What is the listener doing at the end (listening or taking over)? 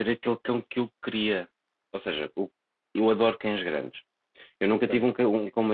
listening